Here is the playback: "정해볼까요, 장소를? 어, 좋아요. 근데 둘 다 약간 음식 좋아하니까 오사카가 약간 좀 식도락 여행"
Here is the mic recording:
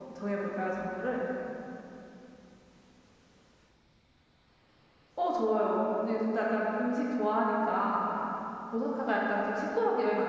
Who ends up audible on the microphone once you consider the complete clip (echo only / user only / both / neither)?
echo only